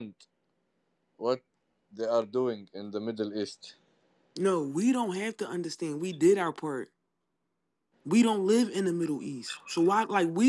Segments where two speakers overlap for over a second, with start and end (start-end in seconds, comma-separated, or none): none